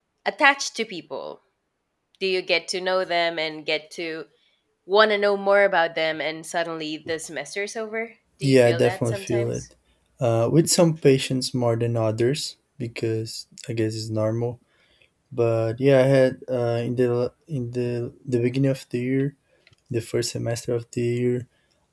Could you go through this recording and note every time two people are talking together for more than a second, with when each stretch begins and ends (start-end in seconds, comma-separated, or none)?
8.4-9.6